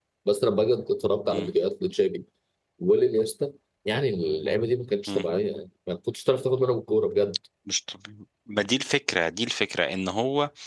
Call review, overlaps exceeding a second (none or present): none